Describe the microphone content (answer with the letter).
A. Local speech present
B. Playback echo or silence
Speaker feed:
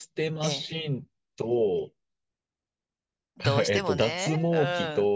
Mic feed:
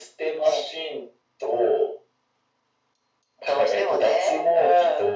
B